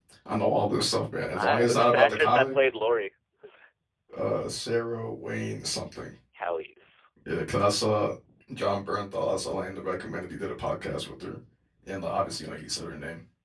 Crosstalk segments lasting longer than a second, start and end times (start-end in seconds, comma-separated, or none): 1.3-2.5